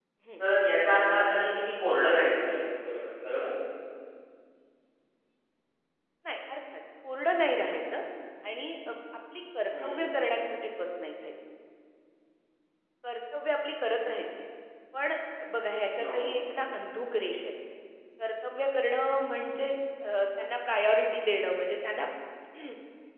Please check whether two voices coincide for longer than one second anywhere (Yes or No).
No